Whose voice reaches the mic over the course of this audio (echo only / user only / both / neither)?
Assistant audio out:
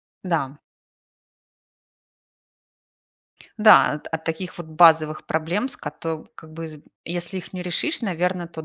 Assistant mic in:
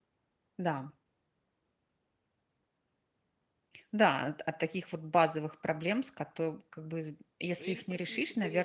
both